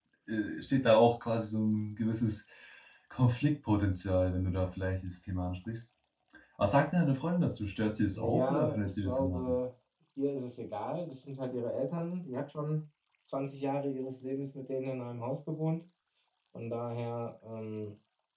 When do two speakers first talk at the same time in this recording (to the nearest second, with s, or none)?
8 s